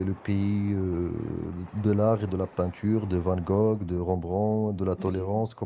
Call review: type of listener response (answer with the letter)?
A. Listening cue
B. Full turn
A